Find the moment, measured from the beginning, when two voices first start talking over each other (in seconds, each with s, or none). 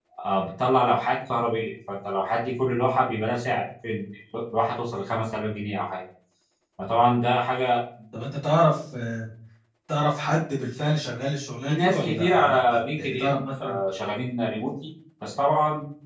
11.6 s